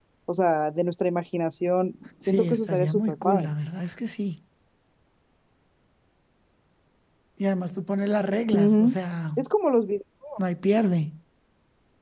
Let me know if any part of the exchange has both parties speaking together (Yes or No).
Yes